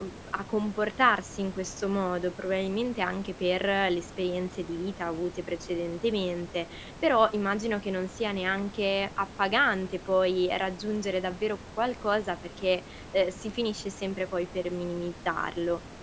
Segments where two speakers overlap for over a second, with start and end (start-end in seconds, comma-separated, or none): none